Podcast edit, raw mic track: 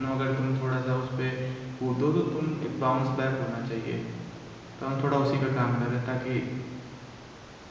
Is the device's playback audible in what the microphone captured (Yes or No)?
No